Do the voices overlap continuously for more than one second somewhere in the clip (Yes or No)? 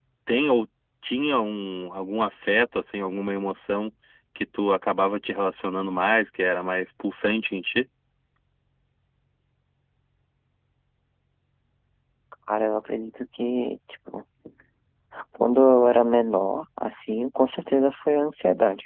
No